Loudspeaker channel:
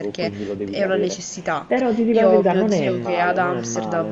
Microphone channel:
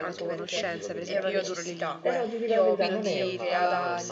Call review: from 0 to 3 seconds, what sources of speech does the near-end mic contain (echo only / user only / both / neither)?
both